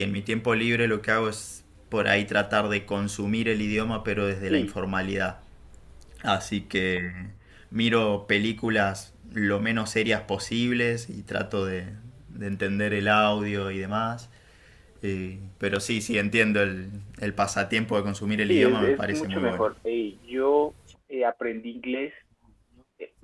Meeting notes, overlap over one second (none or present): present